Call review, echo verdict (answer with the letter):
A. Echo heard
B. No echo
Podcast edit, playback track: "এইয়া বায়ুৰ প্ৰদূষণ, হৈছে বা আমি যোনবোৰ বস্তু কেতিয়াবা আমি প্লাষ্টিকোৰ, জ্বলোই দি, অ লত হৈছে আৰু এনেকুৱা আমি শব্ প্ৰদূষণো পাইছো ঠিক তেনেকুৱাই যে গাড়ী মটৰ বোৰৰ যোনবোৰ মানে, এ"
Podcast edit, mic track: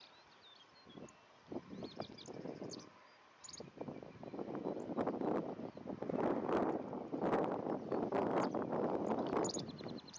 B